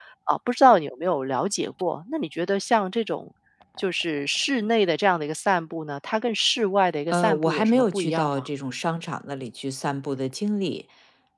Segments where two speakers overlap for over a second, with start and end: 7.1-8.5

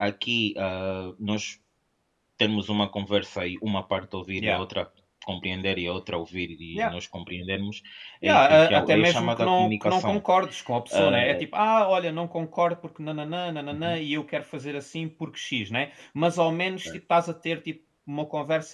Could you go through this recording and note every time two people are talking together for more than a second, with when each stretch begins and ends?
8.2-10.2

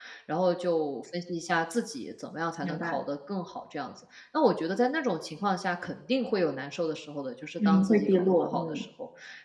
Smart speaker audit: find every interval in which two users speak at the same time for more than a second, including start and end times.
7.6-8.8

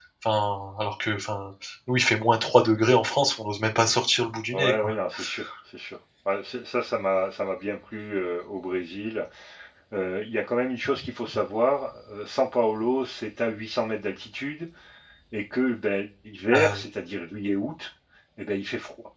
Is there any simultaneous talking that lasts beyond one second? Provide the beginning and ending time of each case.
none

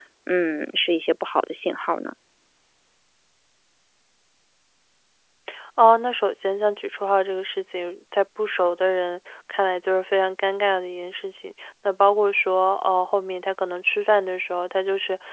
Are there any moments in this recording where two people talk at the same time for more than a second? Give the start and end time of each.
none

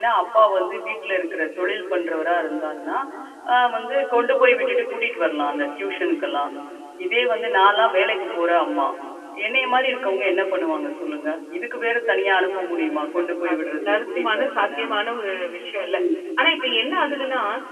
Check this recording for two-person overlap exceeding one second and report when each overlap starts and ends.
12.9-14.8

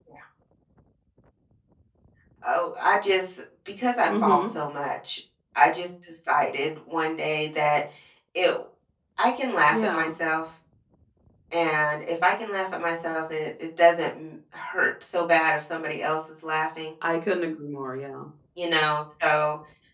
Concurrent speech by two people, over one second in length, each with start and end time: none

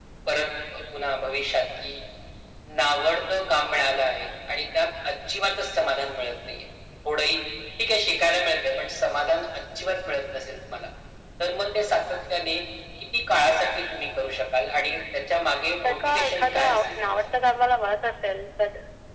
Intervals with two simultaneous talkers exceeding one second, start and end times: 15.8-17.2

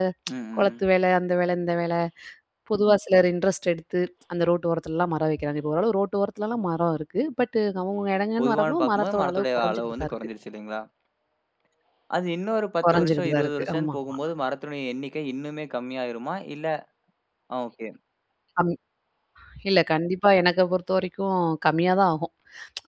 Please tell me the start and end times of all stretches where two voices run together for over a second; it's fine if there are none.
8.4-10.2, 12.8-14.2

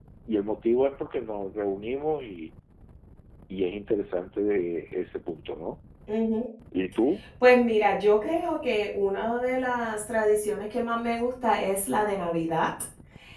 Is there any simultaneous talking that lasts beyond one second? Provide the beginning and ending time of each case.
none

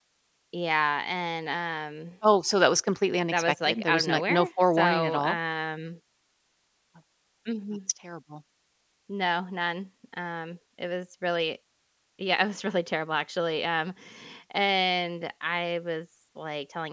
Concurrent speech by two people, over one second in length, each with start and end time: 3.3-5.4

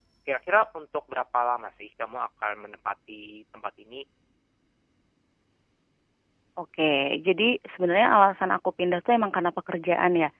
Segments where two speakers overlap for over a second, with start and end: none

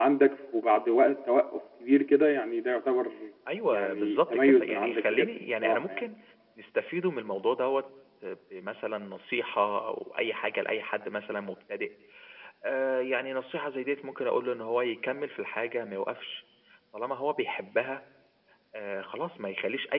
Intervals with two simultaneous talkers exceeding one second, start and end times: 3.7-6.0

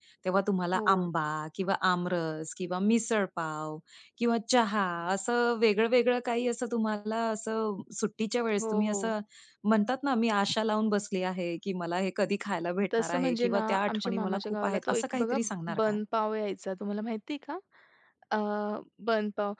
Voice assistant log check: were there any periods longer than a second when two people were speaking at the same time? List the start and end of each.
13.0-15.4

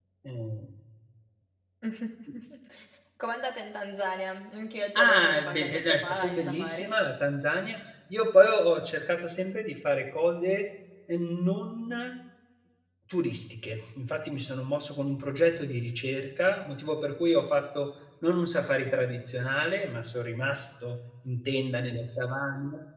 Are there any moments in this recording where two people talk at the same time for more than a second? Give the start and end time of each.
5.0-6.9

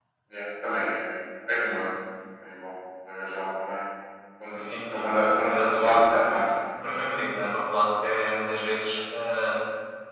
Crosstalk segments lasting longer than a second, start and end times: 4.5-6.4

